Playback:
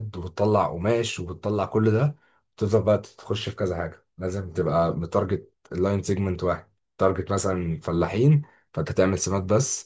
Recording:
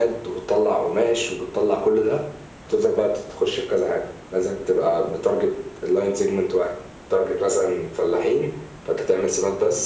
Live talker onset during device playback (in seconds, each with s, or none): none